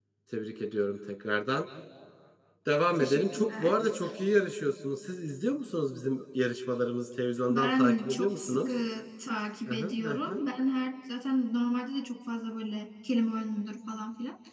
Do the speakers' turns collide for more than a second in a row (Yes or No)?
Yes